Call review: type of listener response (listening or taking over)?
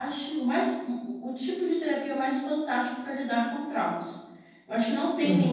listening